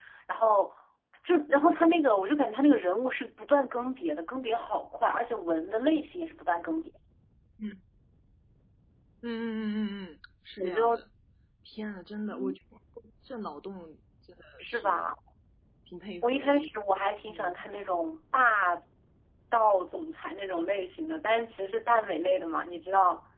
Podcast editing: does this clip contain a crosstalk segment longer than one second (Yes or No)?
No